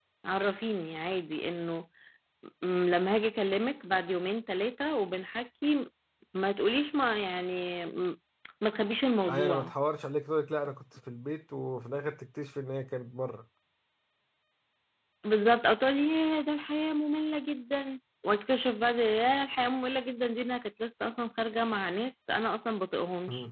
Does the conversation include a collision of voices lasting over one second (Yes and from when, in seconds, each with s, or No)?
No